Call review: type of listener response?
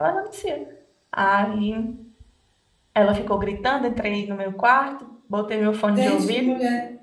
taking over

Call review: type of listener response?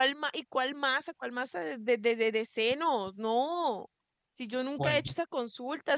listening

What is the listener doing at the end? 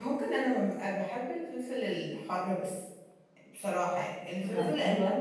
listening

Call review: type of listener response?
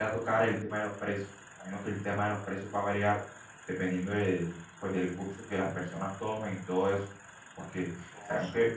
listening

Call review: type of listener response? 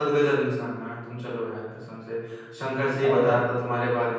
listening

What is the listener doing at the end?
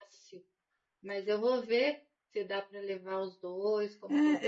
taking over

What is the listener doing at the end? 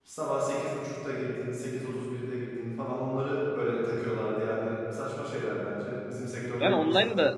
taking over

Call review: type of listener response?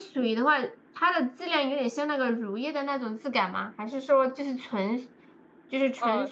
taking over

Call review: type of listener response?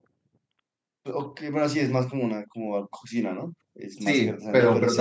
taking over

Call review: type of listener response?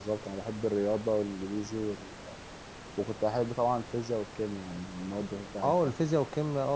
taking over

